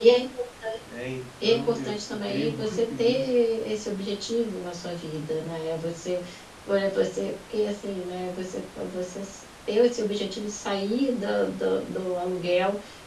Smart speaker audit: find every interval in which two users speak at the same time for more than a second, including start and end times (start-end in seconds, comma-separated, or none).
1.4-3.3